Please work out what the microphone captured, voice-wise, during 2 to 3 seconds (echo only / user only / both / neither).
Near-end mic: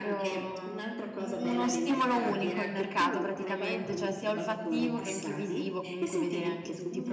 both